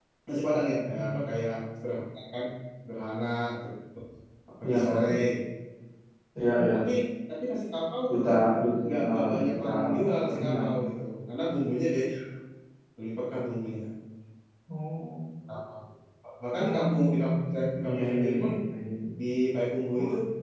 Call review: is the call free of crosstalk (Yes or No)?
No